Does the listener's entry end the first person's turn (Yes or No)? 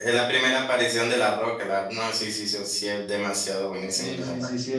Yes